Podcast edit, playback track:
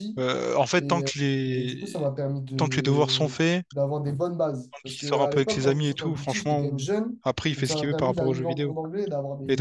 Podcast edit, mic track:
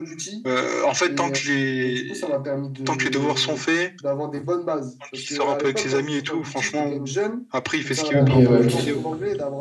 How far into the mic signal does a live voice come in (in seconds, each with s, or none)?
8.1 s